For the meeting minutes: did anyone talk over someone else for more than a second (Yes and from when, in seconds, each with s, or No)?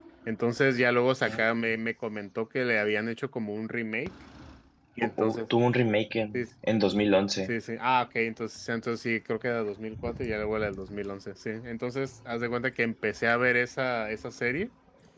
No